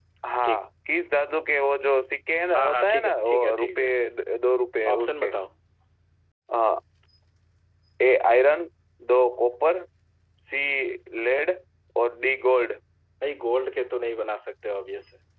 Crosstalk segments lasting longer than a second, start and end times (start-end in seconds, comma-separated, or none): 2.5-3.9